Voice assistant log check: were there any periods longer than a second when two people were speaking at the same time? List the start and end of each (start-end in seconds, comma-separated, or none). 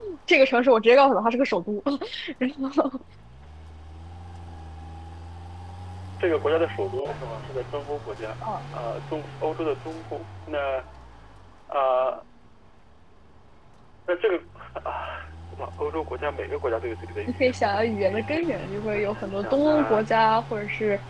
17.4-20.0